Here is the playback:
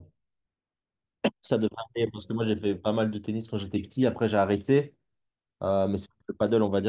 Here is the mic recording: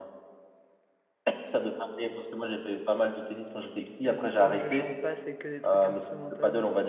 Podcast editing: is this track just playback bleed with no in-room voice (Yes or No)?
No